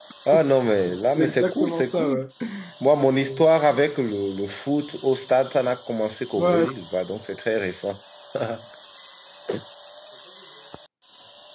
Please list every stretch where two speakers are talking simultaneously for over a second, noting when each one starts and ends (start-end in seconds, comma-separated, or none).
0.9-2.2